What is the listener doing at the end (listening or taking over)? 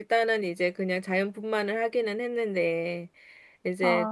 listening